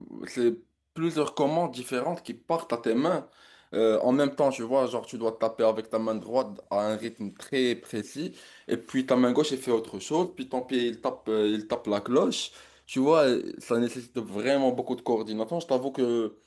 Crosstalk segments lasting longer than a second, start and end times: none

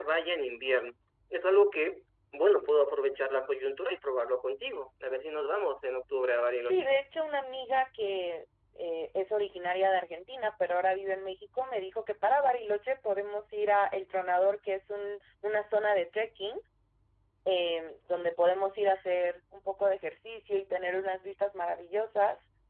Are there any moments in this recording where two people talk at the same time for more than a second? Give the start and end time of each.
none

